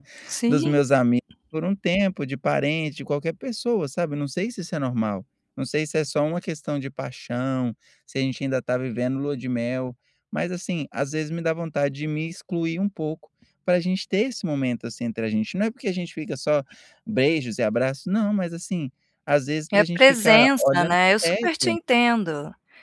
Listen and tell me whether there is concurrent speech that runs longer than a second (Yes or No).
Yes